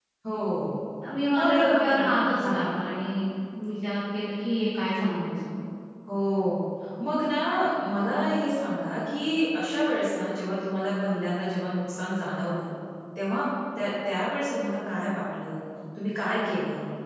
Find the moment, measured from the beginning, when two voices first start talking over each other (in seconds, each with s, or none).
1.4 s